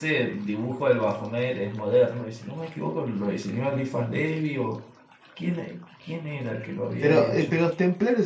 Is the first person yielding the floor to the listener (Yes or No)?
Yes